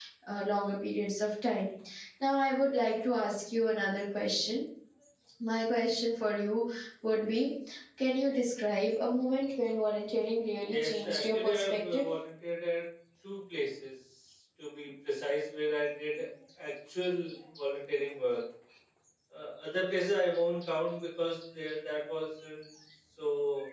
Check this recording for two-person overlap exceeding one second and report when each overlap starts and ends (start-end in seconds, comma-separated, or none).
10.7-12.1